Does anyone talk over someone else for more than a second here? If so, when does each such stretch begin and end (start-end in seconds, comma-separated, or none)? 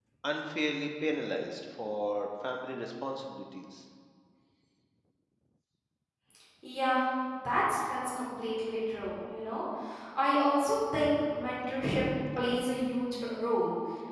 none